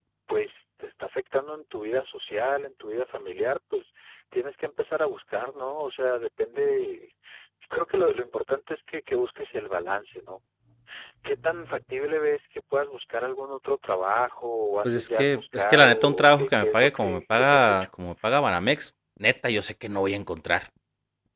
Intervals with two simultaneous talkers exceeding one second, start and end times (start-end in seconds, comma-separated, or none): 14.8-17.9